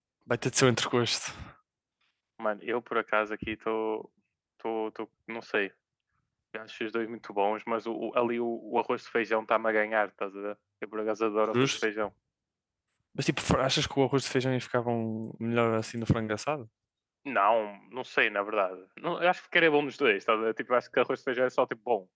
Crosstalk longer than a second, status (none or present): none